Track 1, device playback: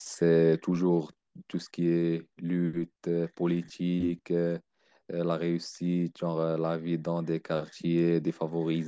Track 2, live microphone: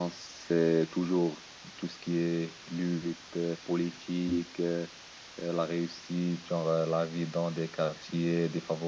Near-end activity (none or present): none